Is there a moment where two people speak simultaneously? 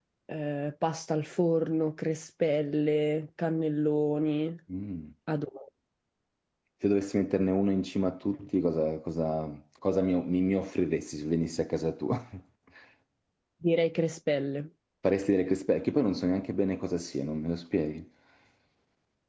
No

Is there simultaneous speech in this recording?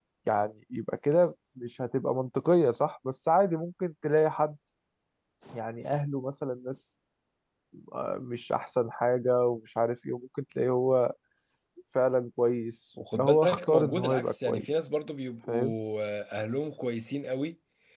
Yes, from 13.0 s

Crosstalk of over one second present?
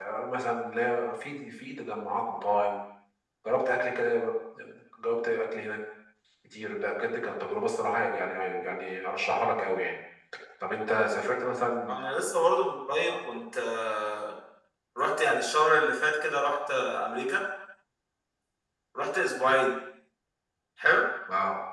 No

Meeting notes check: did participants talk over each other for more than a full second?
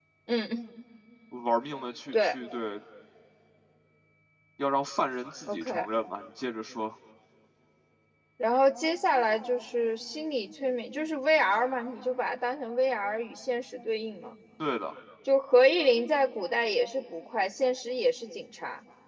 No

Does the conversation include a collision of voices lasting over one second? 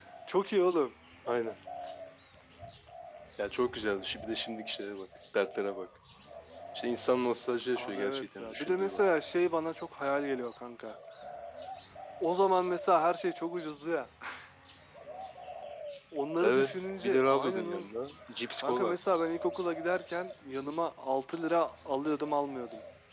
Yes, from 7.8 s

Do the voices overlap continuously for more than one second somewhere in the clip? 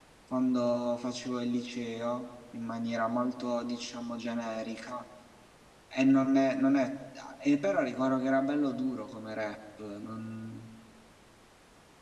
No

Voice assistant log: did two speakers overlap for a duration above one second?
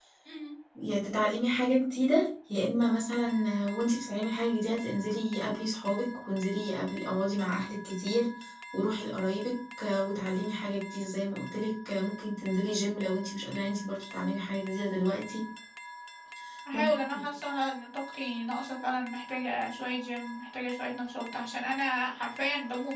No

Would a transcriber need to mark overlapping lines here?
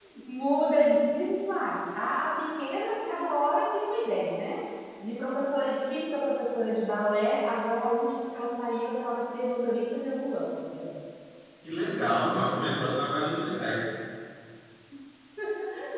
No

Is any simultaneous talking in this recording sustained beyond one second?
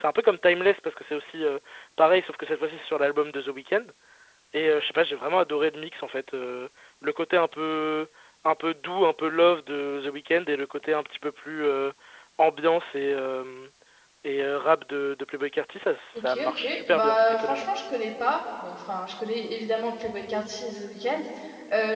Yes, from 16.1 s

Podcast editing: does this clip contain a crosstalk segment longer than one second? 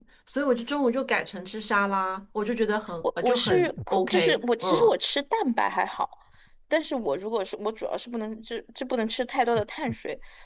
Yes, from 3.2 s

